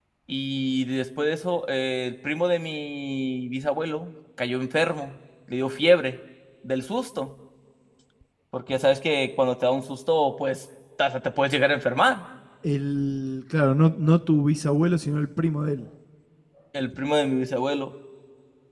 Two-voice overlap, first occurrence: none

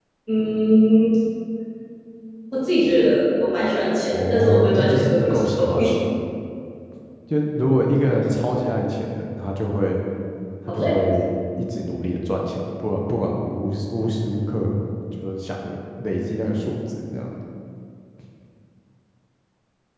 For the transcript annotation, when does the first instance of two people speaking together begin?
4.1 s

